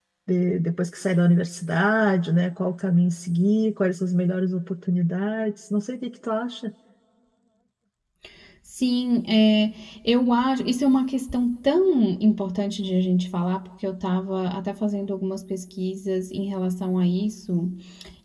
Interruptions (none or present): none